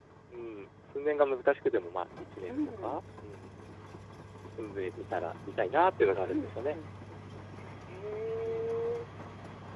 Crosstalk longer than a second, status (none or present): none